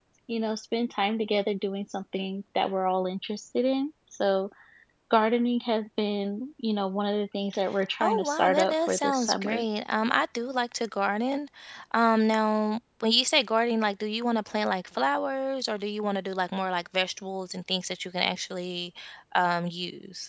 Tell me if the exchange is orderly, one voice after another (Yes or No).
No